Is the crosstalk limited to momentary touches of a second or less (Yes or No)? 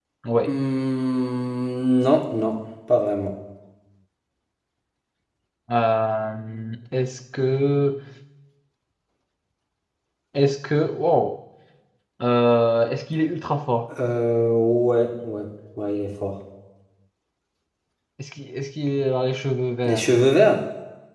Yes